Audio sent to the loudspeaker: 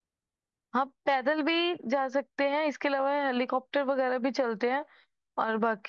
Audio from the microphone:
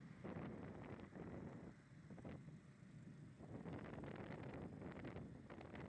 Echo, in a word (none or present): none